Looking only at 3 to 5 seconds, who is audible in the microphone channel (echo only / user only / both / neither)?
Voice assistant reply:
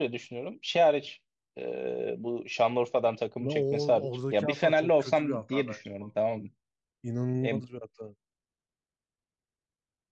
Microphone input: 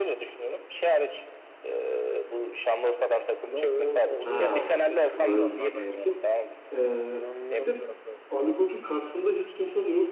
both